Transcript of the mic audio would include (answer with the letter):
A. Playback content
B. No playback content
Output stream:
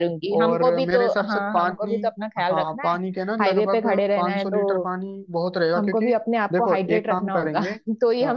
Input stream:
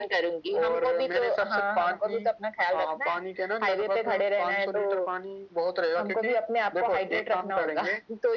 A